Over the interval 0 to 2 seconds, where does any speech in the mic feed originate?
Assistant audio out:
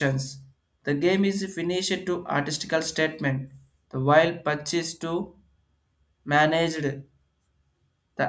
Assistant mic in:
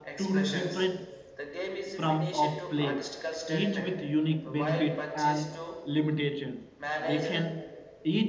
both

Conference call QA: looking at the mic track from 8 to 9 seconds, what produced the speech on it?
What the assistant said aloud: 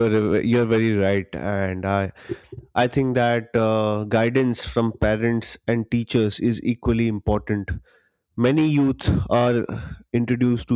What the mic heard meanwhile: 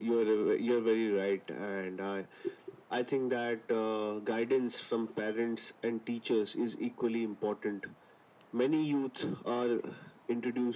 echo only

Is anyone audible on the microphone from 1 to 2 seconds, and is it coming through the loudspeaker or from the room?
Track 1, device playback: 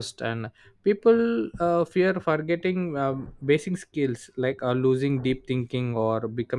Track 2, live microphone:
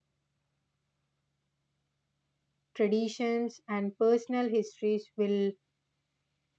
neither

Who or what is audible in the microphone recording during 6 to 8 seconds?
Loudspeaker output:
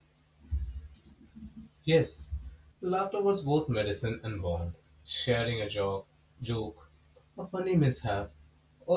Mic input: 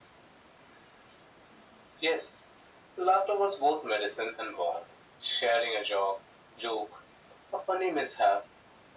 echo only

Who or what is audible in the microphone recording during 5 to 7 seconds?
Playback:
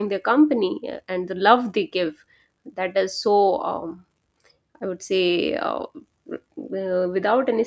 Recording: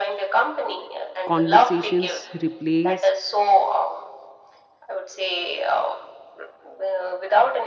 echo only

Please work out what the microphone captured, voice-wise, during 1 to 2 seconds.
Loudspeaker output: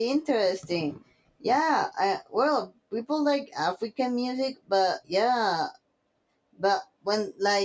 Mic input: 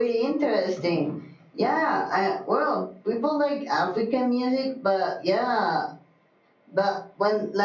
echo only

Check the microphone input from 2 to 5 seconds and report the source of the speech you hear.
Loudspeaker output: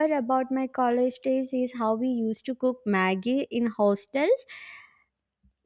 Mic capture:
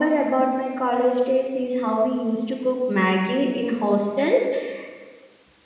echo only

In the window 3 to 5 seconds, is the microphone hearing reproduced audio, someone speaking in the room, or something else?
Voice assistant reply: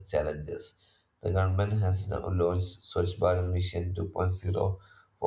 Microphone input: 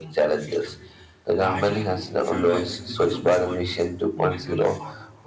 both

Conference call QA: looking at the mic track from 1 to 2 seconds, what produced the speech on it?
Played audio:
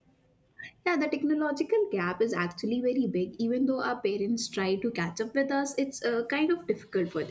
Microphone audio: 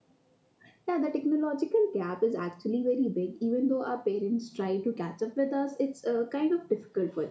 echo only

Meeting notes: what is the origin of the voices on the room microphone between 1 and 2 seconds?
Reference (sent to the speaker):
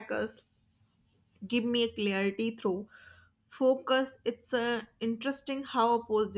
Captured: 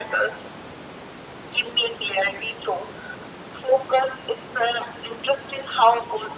echo only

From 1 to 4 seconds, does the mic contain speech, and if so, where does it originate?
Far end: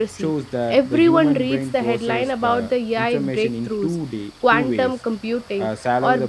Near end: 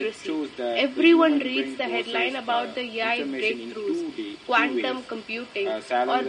echo only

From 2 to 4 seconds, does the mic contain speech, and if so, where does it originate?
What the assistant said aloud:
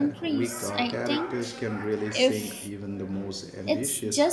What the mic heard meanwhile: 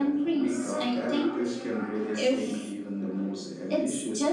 echo only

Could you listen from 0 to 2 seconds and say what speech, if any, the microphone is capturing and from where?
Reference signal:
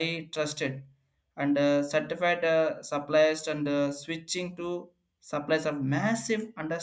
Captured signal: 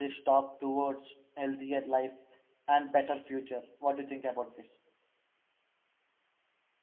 user only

